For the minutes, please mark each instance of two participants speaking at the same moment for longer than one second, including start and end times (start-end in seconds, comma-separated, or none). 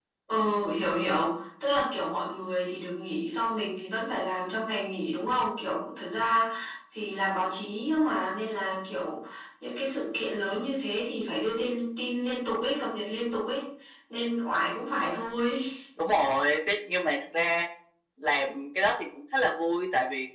none